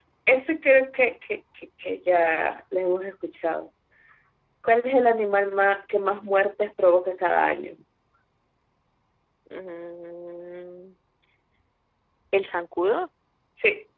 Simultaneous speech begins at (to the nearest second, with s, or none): none